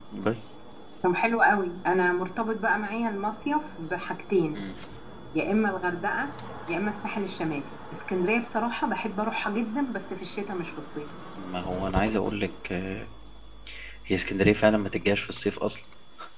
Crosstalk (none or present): none